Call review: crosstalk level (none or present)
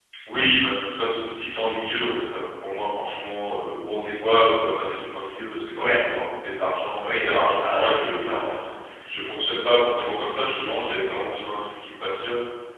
present